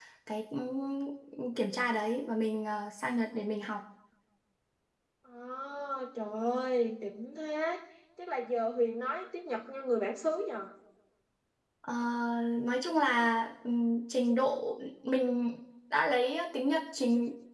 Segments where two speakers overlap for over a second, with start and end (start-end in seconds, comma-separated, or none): none